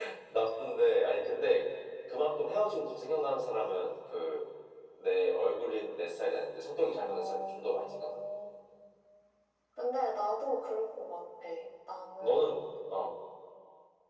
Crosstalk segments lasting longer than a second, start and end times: 6.9-8.2

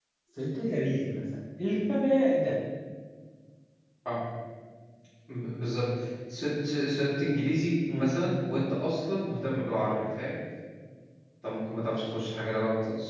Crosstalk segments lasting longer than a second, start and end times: none

